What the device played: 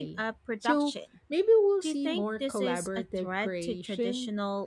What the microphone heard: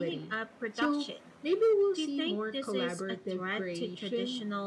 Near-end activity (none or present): none